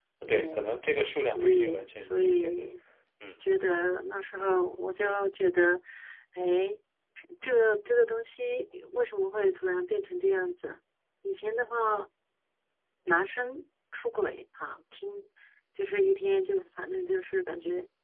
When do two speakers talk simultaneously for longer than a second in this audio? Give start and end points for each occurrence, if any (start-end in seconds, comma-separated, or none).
1.3-2.6